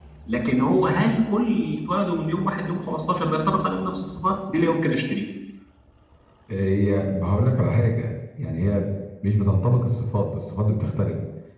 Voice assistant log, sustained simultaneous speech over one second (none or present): none